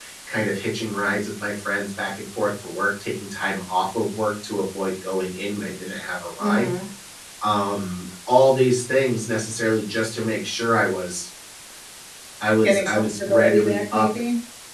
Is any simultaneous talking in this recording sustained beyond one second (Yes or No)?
Yes